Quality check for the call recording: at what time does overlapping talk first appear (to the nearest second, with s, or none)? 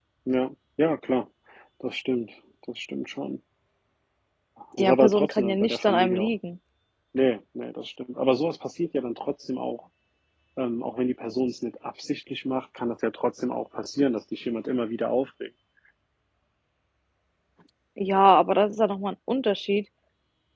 5 s